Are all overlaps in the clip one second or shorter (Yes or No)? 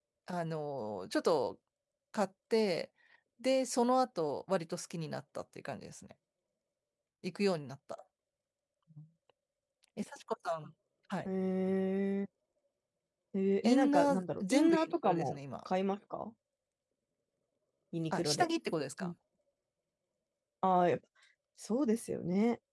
No